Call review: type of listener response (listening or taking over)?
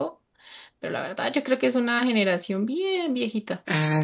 taking over